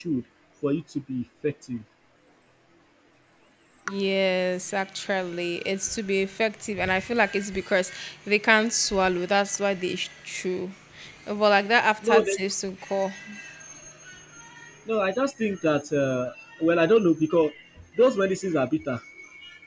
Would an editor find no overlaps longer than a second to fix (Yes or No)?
Yes